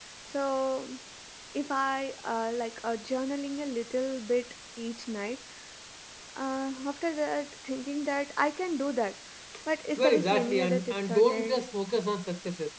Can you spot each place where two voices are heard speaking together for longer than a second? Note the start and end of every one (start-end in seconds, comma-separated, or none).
10.0-11.6